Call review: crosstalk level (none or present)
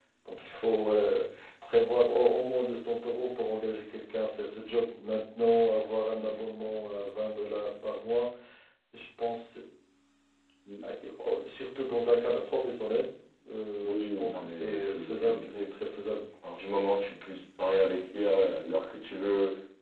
present